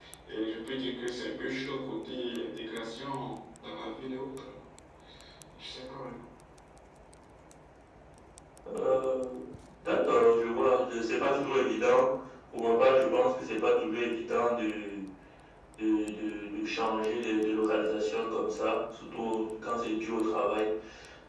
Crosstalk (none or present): none